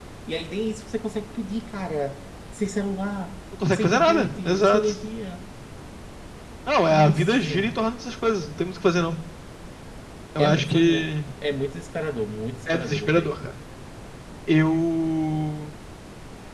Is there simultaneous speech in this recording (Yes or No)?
Yes